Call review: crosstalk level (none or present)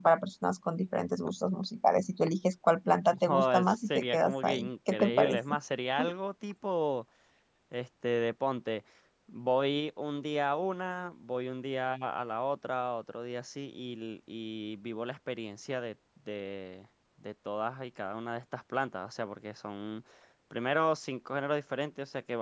present